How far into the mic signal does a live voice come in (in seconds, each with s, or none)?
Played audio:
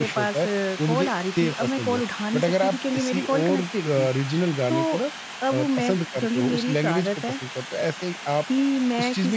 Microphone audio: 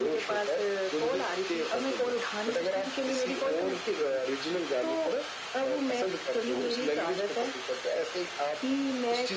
none